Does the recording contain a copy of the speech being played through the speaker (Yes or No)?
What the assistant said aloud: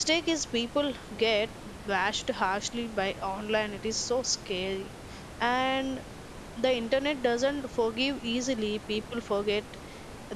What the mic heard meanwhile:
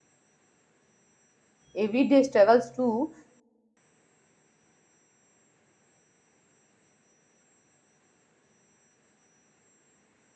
No